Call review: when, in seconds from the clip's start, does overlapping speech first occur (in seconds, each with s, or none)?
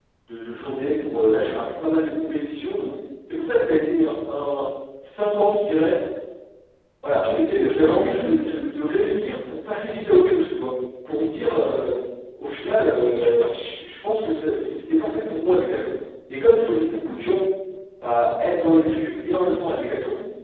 7.1 s